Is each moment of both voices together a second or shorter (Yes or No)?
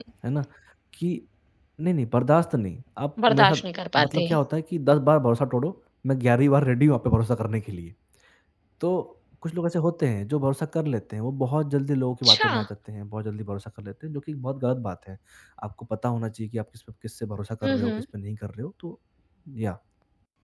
Yes